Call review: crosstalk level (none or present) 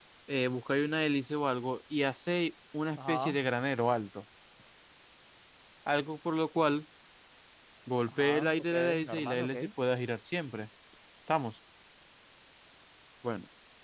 present